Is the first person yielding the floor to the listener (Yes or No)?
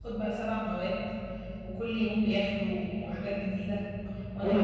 Yes